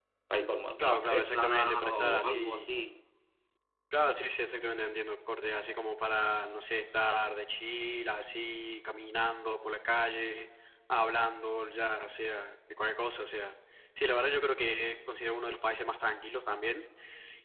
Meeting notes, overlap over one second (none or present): present